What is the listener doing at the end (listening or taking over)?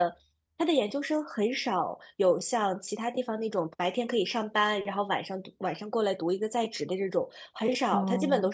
listening